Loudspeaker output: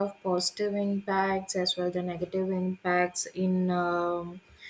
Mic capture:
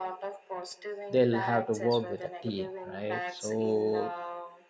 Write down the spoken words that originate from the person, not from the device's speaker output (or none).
they'll have to work with a team right so